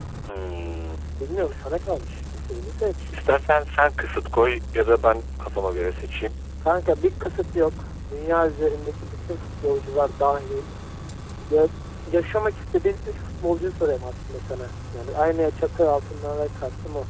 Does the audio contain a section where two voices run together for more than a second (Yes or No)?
No